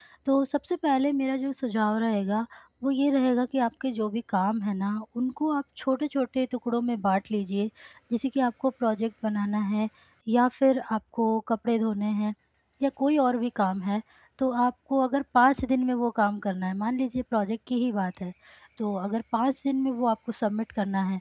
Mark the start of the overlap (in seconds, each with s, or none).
none